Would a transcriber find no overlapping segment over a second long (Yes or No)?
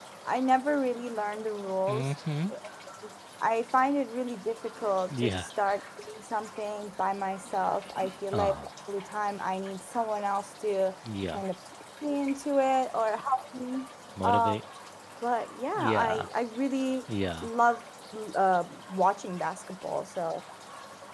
Yes